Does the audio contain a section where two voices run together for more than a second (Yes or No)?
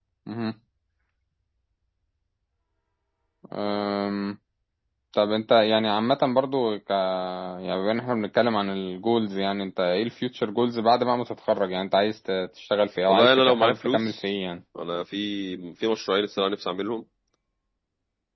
Yes